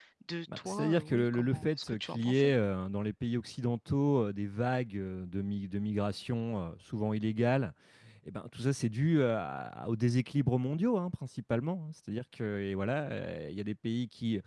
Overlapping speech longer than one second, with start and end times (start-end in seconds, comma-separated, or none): 0.6-2.5